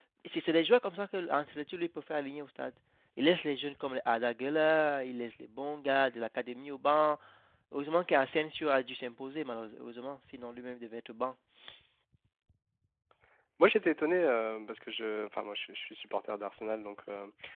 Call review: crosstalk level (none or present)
none